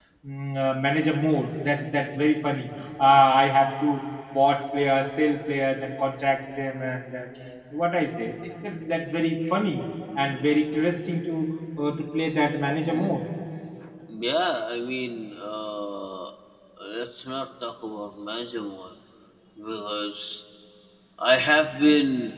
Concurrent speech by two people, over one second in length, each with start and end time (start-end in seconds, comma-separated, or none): none